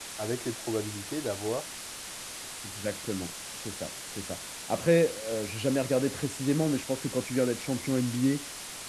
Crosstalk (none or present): none